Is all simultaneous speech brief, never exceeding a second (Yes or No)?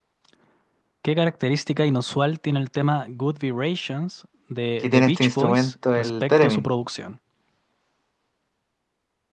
No